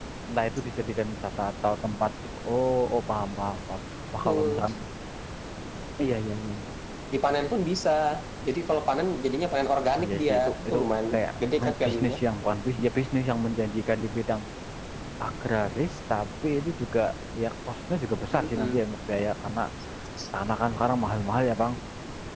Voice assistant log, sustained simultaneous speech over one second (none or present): present